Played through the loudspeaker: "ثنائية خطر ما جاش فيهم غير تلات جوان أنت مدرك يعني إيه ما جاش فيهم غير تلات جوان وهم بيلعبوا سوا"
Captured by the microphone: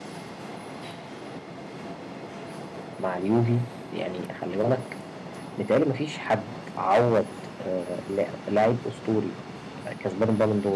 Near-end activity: present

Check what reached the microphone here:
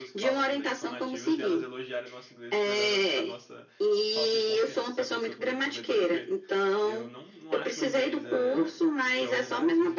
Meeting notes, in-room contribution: present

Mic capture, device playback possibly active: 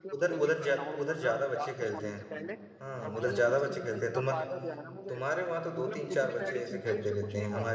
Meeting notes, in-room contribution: present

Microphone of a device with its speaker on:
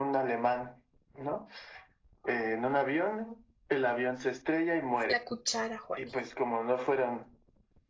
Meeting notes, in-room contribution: present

